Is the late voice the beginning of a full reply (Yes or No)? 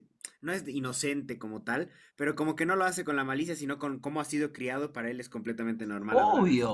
Yes